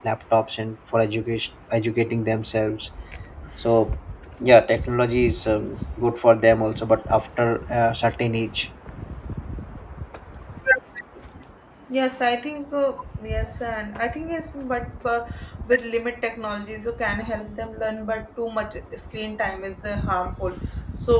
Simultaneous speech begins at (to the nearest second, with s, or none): none